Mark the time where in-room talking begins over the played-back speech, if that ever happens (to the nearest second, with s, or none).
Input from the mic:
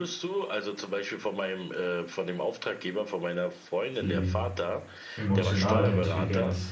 4 s